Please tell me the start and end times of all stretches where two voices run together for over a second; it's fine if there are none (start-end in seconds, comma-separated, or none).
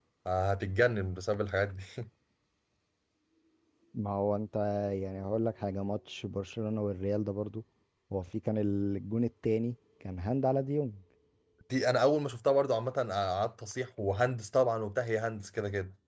none